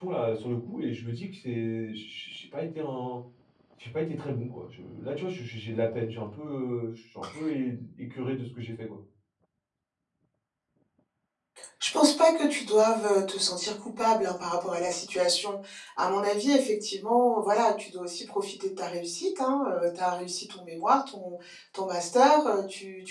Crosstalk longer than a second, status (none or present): none